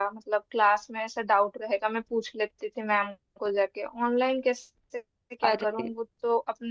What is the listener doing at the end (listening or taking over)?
listening